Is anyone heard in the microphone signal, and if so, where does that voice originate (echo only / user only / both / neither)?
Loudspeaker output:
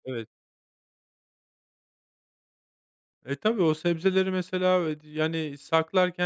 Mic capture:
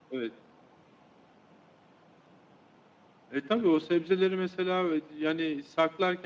echo only